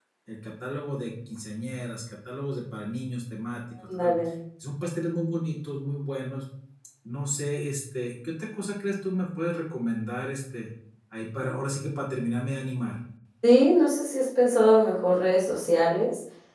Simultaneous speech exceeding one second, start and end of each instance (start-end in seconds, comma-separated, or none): none